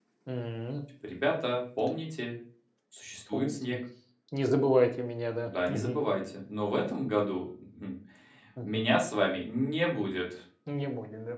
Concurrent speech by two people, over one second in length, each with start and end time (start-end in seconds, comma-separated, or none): none